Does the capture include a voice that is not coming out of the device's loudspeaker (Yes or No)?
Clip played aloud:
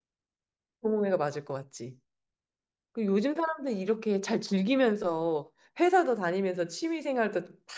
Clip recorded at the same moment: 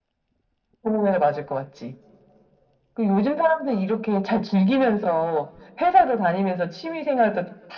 No